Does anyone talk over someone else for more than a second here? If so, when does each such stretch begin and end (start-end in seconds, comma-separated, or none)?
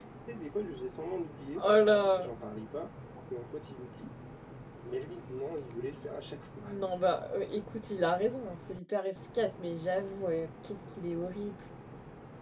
none